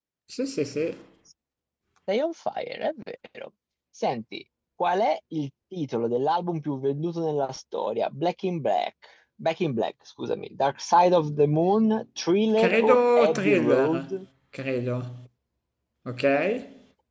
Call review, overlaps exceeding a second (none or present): present